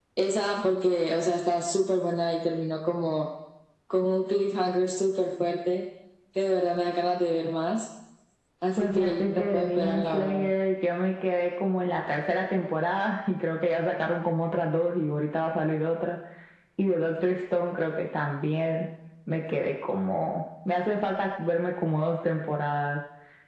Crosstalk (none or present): present